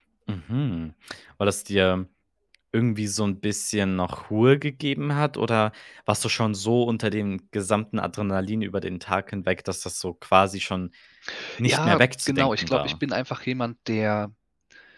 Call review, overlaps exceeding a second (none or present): present